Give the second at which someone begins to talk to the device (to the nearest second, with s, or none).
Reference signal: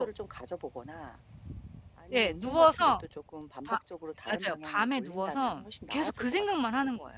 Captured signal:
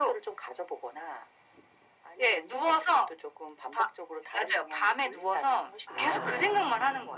6 s